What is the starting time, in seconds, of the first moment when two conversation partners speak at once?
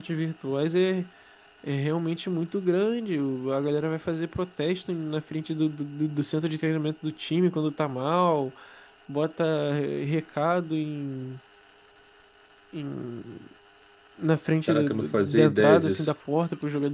15 s

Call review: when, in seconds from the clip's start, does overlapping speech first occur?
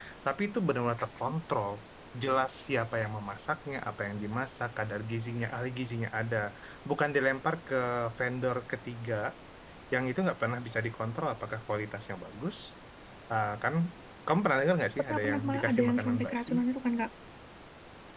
15 s

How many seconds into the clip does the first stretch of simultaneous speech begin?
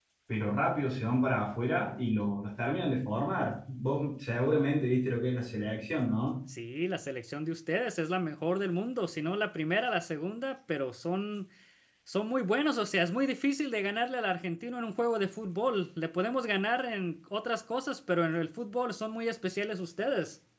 none

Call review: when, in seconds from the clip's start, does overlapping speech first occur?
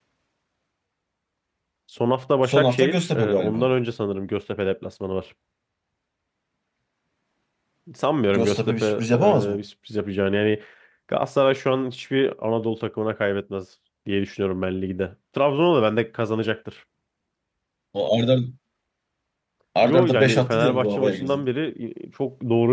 2 s

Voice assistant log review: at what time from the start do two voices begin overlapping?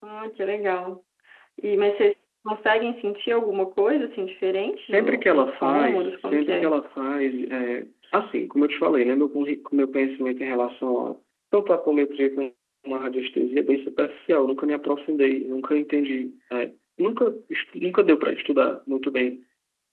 5 s

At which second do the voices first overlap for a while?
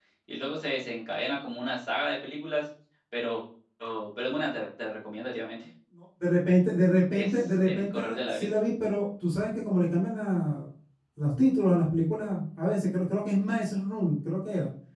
7 s

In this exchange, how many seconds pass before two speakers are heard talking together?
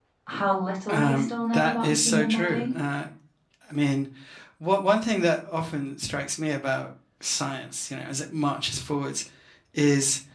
1 s

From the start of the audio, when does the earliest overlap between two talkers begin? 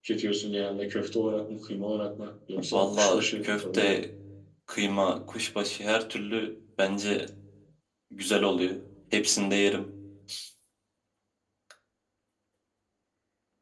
3 s

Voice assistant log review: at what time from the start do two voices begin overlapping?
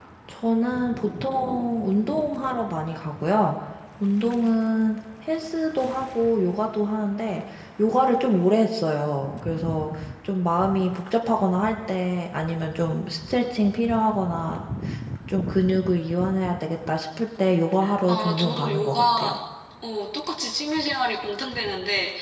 18 s

